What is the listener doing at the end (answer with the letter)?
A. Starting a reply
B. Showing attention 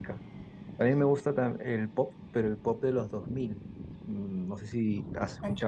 B